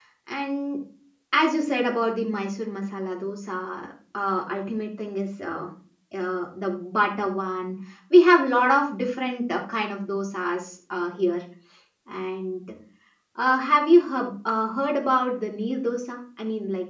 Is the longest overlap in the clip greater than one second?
No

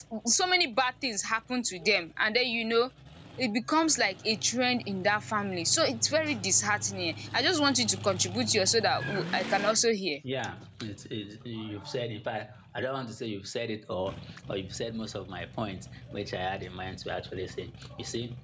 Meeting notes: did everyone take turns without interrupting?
Yes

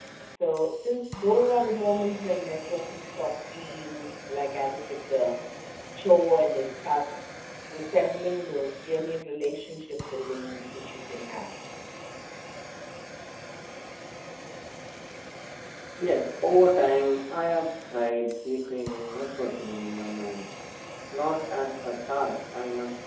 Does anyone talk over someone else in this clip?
No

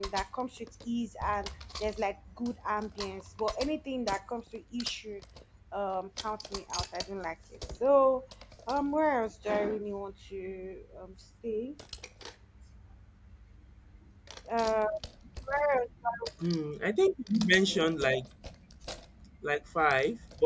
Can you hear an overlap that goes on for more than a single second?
No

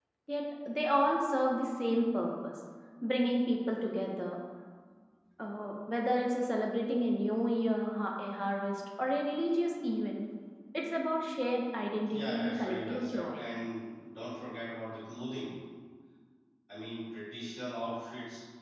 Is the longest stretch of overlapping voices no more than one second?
No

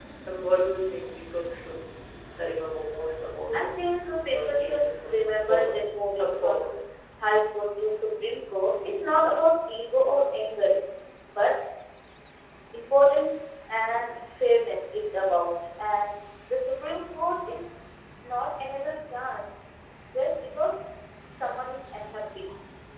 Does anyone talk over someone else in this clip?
Yes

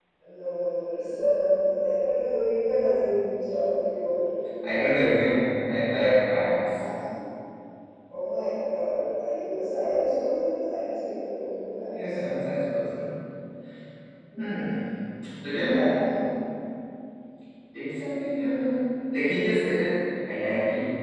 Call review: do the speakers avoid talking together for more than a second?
Yes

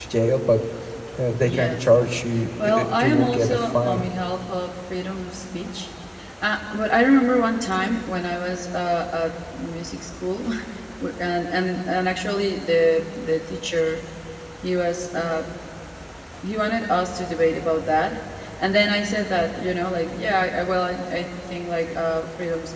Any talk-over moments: Yes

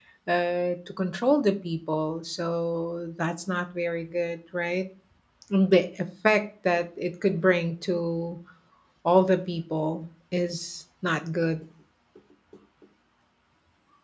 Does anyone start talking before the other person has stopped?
No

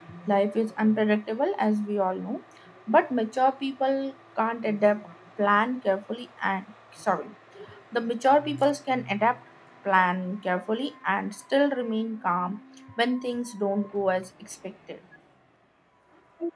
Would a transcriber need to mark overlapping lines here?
No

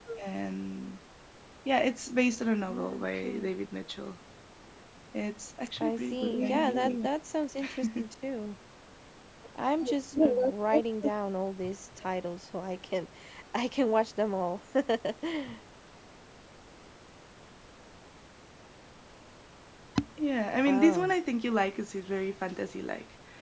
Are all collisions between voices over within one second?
No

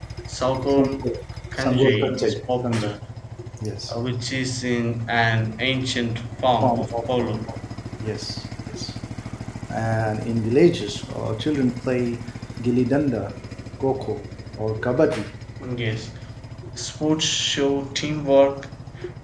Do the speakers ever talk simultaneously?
Yes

